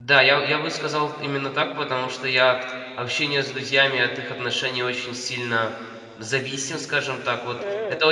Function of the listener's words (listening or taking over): listening